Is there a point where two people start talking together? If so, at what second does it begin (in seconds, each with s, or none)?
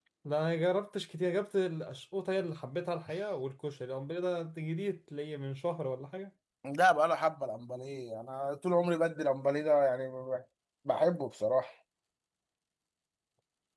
none